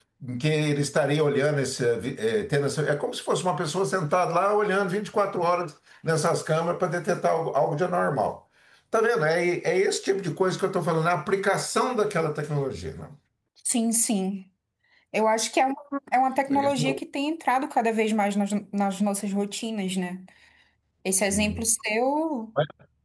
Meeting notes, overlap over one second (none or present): none